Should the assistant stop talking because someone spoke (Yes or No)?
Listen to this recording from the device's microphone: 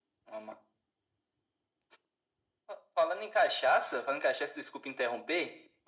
No